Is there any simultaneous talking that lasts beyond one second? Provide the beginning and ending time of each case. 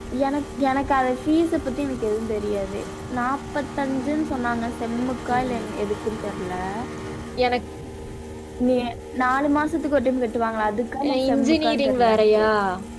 11.1-12.4

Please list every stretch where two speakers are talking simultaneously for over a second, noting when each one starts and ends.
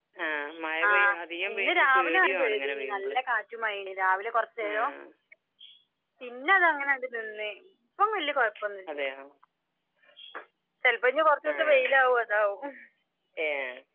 1.5-3.2

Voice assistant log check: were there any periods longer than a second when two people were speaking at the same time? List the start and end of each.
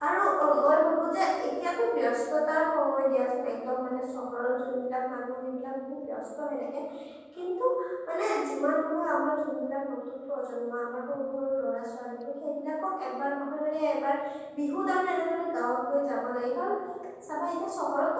none

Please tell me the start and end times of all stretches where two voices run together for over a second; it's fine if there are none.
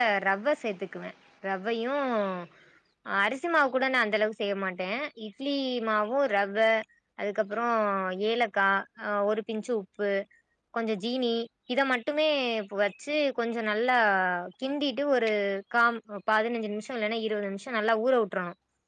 none

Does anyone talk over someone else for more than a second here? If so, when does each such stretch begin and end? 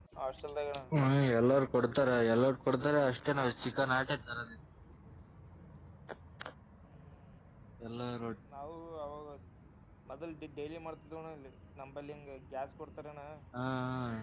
none

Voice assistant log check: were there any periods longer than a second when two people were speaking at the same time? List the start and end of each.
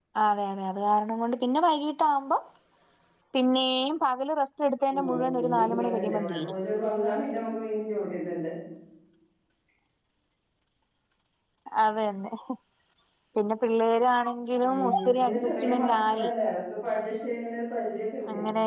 4.9-6.5, 14.6-16.3

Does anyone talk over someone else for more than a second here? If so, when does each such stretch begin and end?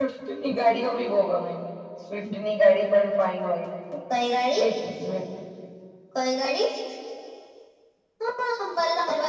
none

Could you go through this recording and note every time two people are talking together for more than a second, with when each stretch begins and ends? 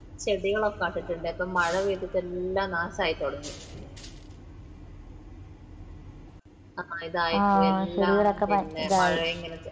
7.4-9.2

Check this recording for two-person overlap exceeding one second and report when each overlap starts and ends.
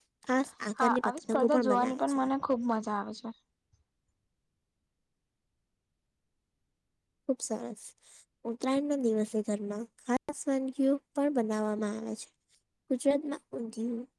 0.8-2.2

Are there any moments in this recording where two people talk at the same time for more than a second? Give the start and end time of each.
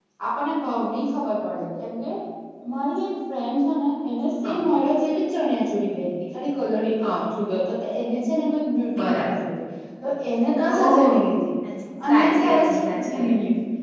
12.1-13.3

